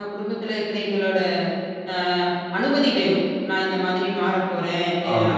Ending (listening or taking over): listening